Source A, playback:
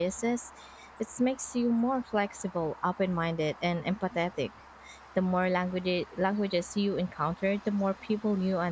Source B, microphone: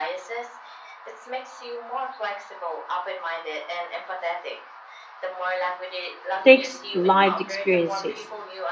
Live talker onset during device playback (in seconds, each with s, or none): 6.4 s